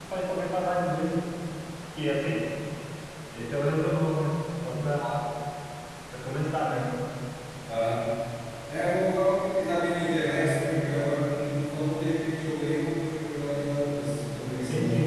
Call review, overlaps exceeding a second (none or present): none